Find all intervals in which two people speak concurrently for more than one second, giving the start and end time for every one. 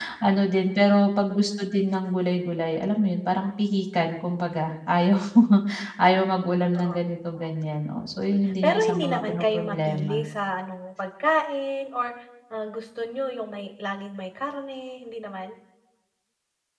8.6-10.2

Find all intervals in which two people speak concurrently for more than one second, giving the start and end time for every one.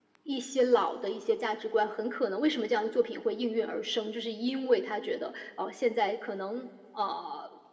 none

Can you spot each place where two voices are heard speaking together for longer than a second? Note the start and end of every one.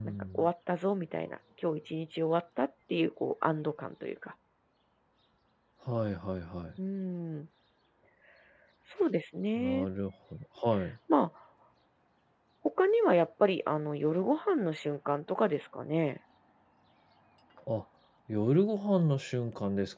none

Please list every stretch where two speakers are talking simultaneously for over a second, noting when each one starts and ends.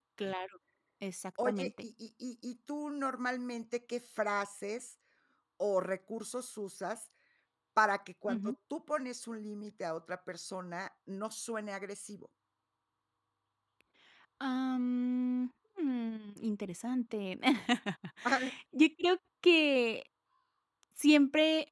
none

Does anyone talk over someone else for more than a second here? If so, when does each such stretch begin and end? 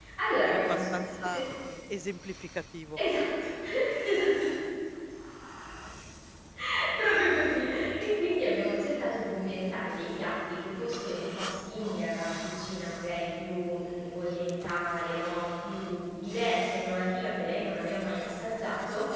none

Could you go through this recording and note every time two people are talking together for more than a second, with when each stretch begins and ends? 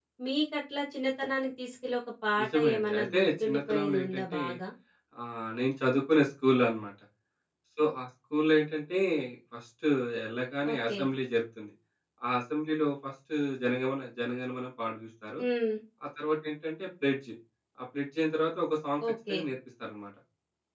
2.4-4.4

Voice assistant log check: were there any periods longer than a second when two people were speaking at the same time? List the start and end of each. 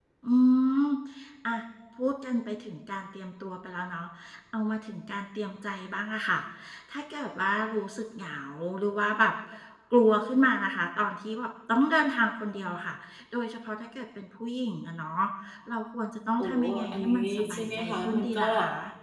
16.4-18.5

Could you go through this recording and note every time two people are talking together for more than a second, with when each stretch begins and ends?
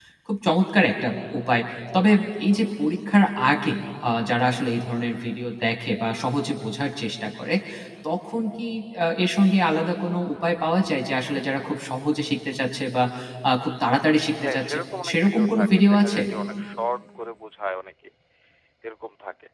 14.4-16.2

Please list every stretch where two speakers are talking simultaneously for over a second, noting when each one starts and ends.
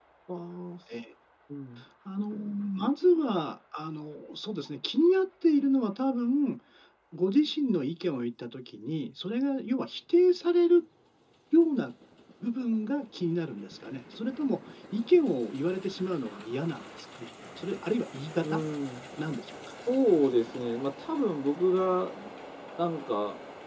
none

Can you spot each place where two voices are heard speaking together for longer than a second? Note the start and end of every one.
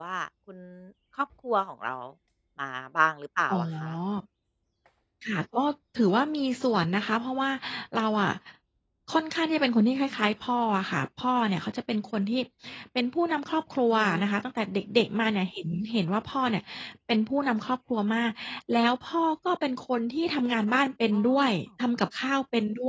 none

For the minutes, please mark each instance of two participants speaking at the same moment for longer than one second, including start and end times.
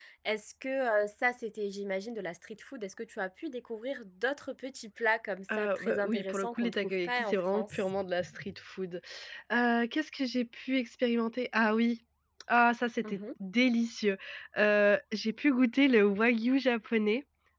5.6-7.8

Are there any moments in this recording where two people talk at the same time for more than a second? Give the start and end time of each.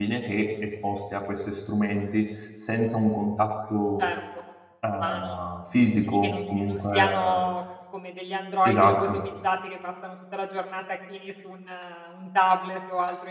6.0-7.4

